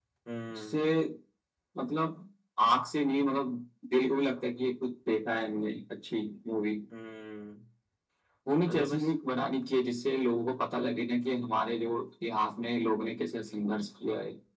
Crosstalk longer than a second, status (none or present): none